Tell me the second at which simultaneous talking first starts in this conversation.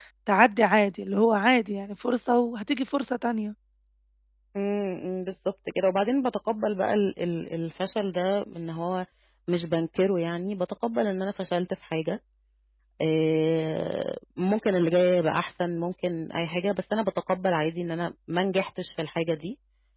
none

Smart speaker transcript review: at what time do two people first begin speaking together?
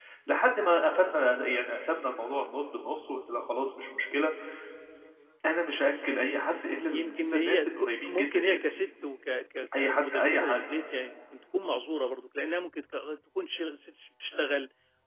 7 s

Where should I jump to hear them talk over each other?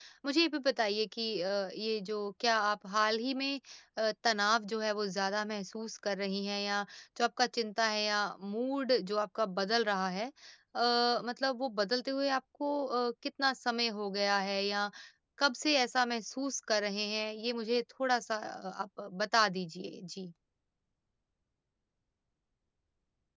none

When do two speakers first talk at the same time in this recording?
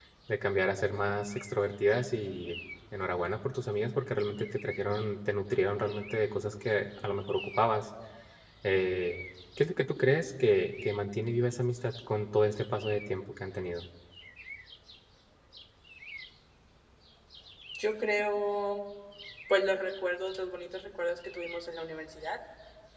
none

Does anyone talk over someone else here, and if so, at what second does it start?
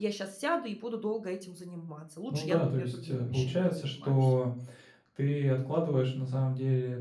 2 s

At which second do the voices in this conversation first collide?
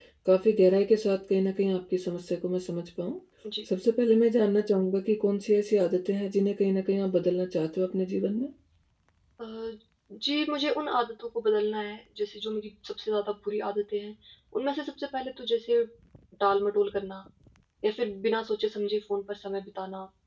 none

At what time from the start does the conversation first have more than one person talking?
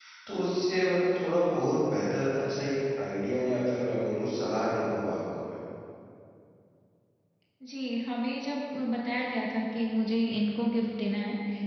none

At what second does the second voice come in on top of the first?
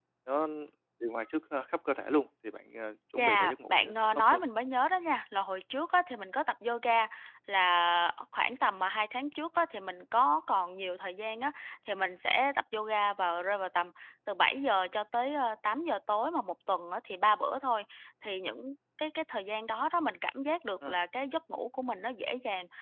3 s

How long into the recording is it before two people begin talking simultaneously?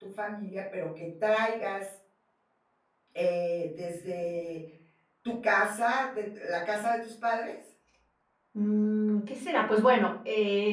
none

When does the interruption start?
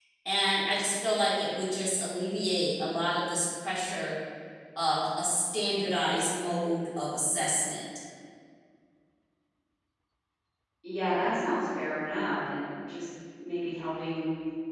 none

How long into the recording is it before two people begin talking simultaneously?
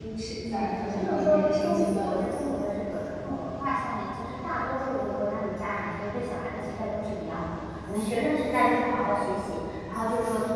1 s

